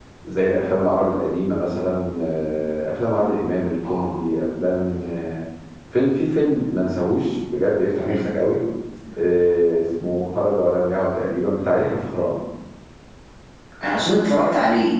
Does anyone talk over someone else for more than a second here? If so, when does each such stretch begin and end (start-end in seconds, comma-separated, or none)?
none